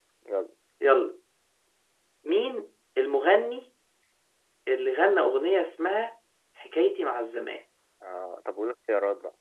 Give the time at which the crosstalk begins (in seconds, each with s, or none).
none